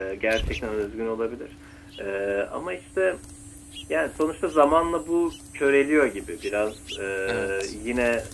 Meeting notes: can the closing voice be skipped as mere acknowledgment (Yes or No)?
Yes